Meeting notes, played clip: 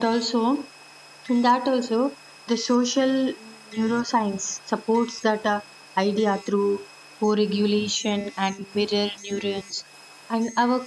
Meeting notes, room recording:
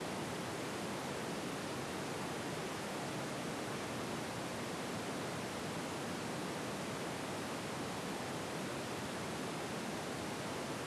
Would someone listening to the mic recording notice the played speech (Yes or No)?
No